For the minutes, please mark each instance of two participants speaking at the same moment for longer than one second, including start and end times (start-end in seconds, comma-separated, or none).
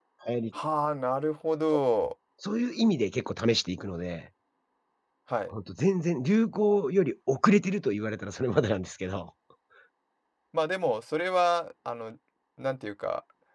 none